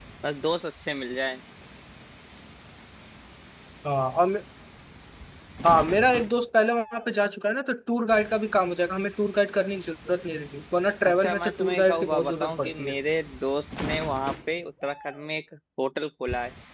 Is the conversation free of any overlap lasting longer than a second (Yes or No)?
No